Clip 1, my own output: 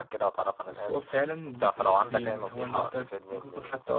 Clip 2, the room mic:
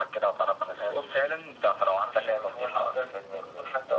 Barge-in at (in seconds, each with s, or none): none